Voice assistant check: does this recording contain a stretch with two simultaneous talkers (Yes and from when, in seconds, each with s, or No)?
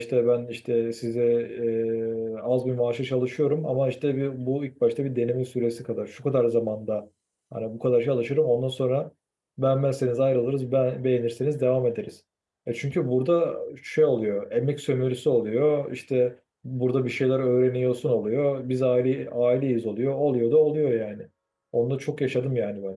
No